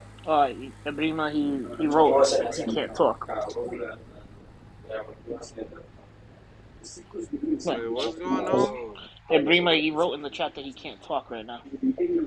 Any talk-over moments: Yes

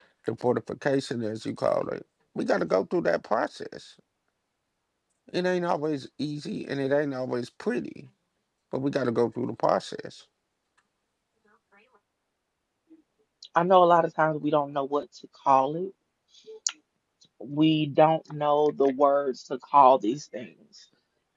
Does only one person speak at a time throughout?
Yes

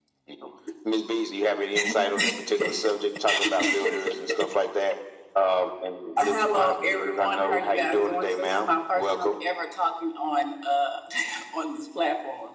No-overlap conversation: No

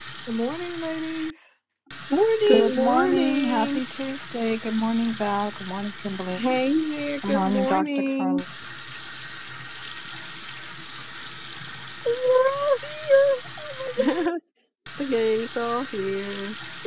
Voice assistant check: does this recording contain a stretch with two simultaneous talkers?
Yes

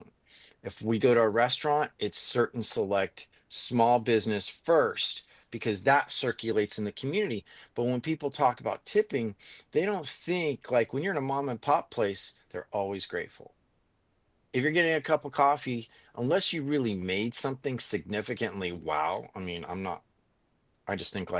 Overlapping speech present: No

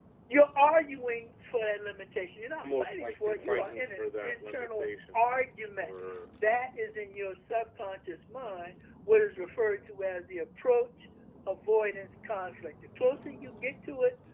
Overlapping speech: Yes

